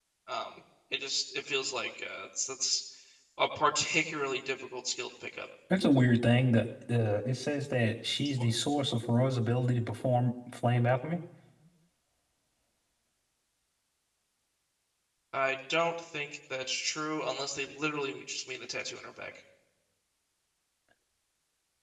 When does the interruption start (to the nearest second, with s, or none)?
none